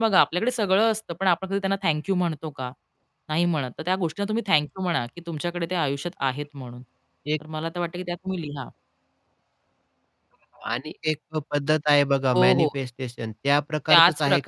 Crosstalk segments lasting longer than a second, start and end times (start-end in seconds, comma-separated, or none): none